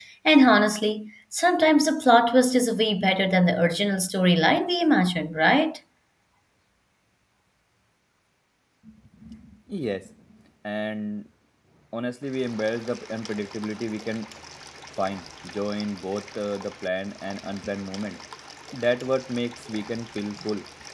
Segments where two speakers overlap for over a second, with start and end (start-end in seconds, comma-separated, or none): none